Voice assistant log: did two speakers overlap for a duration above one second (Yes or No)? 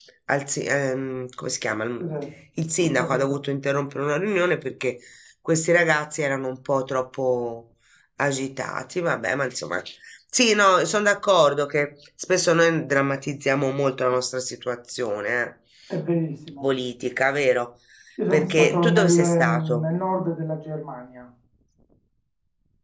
Yes